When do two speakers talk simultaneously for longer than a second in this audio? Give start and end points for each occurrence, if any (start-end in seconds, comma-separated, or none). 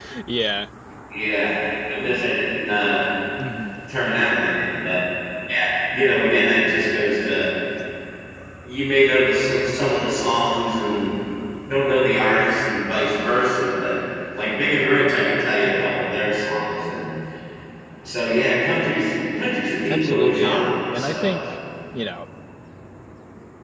19.9-21.4